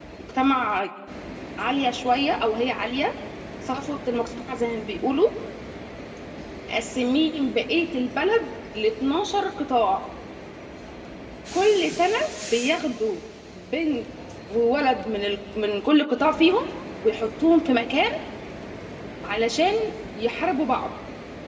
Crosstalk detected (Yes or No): No